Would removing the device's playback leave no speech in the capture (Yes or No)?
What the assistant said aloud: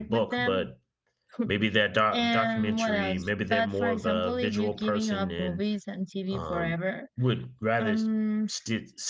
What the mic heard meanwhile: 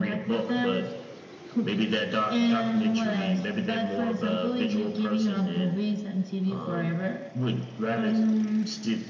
Yes